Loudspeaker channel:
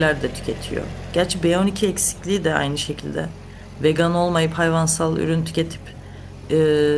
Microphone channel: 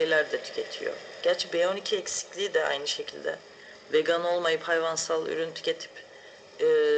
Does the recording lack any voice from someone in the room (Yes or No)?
Yes